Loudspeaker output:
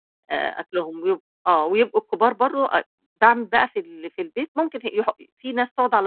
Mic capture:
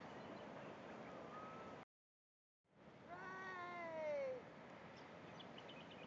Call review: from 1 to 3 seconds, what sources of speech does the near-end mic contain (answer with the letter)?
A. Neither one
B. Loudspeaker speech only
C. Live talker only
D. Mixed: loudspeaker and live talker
A